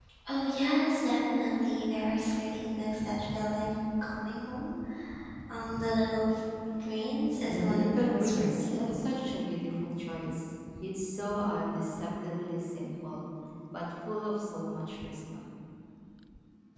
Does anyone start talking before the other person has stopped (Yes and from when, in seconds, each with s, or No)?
Yes, from 7.4 s